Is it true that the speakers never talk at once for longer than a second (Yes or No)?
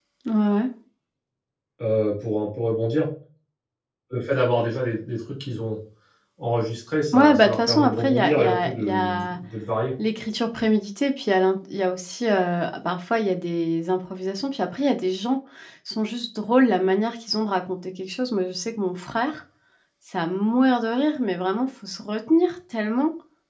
No